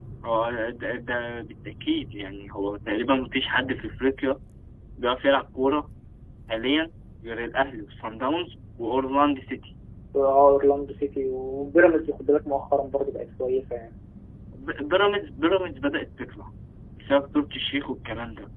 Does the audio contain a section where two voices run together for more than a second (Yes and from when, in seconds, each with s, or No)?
No